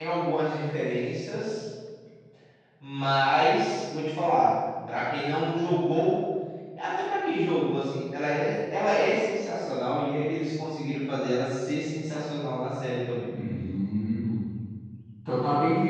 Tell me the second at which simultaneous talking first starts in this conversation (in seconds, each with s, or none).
none